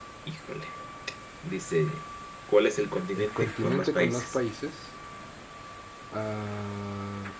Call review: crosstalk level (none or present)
present